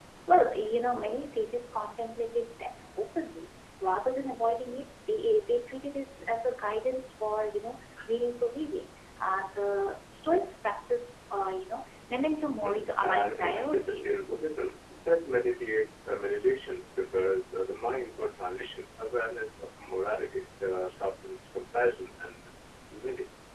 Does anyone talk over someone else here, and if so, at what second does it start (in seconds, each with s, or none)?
12.6 s